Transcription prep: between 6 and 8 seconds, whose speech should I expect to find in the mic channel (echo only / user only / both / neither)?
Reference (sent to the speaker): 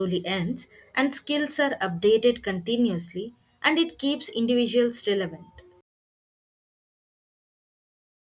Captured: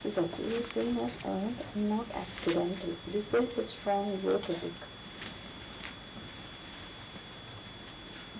neither